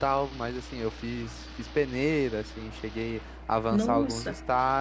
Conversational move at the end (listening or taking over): listening